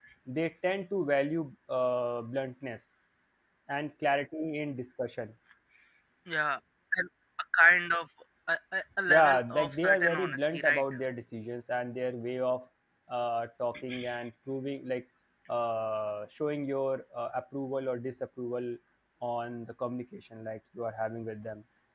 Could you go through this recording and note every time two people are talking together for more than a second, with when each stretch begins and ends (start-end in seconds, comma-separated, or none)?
9.1-10.8